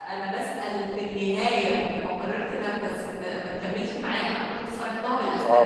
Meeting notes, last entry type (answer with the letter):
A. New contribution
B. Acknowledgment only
A